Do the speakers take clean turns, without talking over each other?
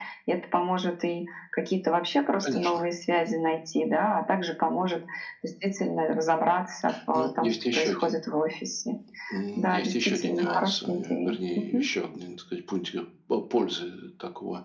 No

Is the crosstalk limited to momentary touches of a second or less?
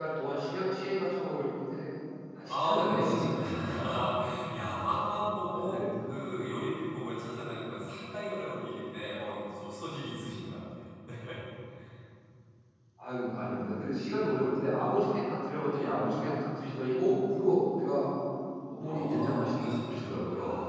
No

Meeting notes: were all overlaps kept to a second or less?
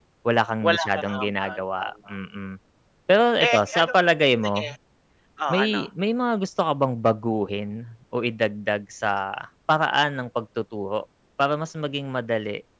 No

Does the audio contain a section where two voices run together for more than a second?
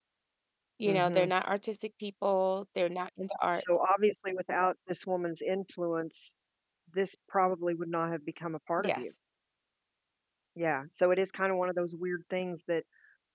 No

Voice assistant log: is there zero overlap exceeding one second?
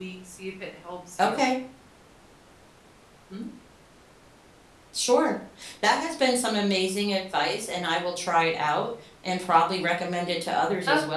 Yes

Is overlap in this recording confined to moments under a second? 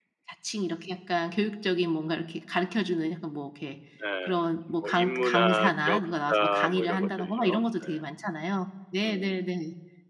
No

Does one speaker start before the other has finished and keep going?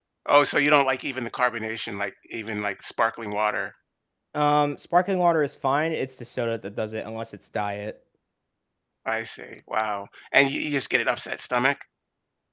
No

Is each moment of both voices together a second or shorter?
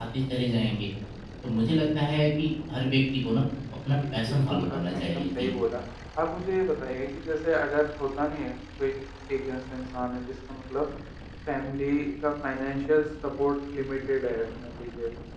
No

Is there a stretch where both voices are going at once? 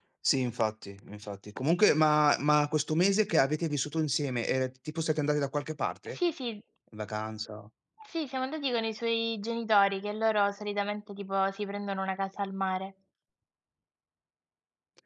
No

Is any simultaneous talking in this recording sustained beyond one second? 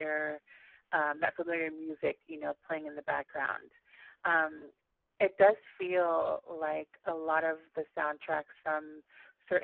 No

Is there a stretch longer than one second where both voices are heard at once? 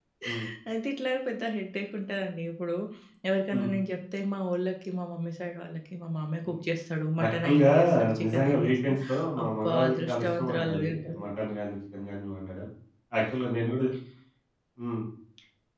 Yes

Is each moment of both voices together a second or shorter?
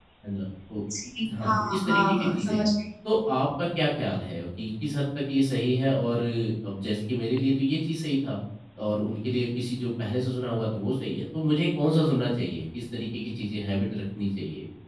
No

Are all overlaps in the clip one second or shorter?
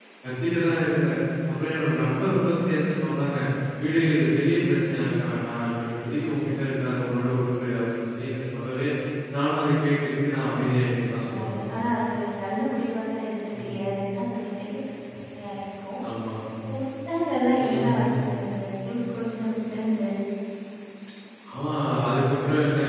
Yes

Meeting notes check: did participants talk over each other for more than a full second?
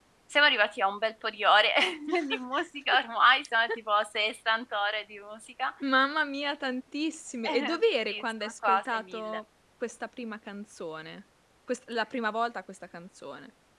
Yes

